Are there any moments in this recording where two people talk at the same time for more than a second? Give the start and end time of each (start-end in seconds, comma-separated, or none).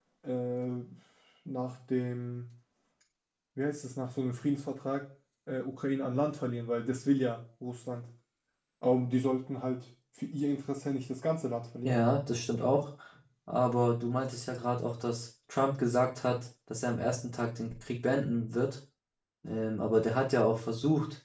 none